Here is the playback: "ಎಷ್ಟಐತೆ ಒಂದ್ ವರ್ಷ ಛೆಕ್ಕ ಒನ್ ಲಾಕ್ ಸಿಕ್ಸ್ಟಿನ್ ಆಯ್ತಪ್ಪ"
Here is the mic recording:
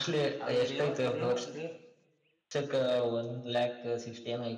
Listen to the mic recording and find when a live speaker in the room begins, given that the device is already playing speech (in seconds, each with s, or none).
0.5 s